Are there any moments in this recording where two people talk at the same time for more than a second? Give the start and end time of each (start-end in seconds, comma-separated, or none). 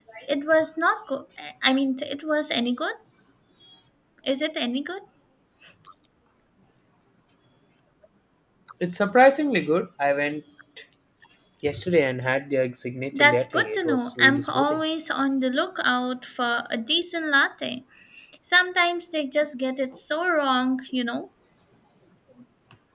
13.2-14.8